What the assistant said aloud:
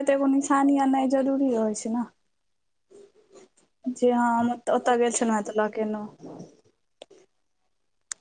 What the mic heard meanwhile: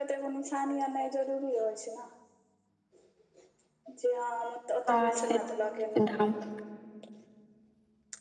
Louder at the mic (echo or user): user